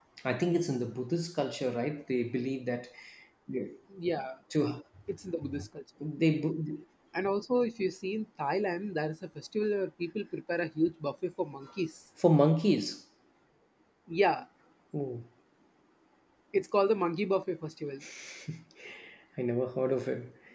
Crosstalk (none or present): none